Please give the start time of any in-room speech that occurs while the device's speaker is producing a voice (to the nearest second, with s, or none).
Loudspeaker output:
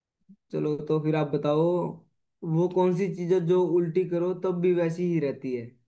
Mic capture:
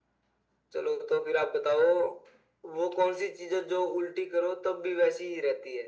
none